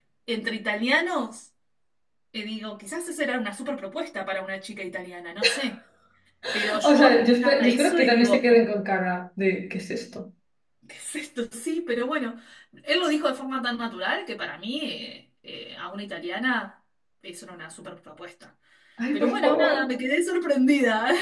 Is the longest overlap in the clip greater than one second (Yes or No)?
Yes